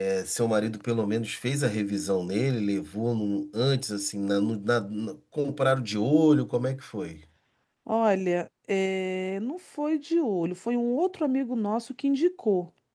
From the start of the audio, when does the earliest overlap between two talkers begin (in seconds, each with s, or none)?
none